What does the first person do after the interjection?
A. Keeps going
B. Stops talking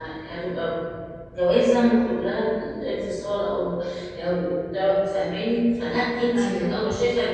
A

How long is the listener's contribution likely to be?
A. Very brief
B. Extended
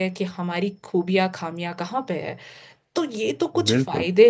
A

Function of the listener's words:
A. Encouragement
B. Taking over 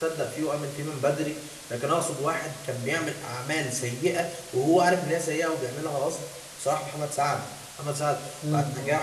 A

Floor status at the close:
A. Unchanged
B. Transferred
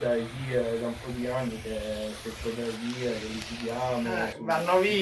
B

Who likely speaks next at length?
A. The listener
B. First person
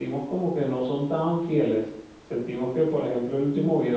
B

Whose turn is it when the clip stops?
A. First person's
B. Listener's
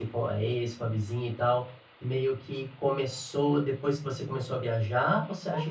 B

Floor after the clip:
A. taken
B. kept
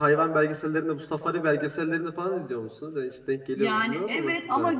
A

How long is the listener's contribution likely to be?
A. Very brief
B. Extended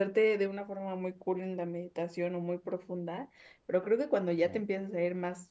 A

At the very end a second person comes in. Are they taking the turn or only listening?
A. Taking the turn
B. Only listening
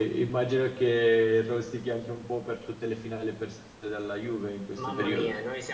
A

